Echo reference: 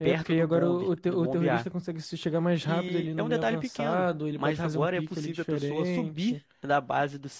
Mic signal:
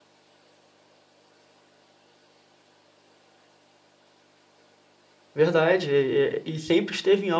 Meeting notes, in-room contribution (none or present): present